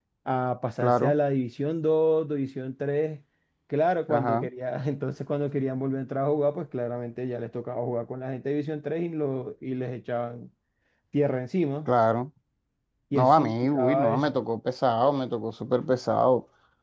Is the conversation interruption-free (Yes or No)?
No